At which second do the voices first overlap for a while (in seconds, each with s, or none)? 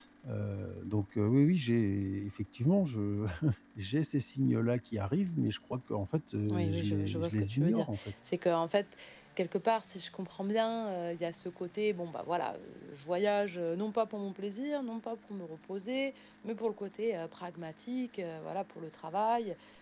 6.5 s